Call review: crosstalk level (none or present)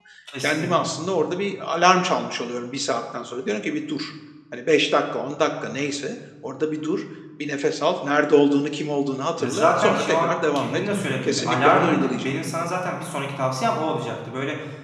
present